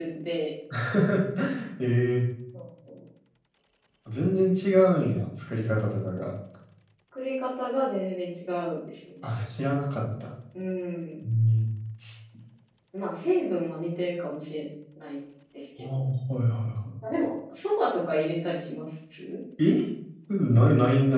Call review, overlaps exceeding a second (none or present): none